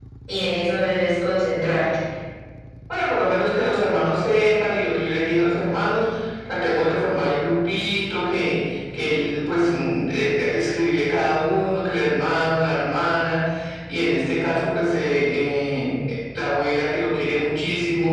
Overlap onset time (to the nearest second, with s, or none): none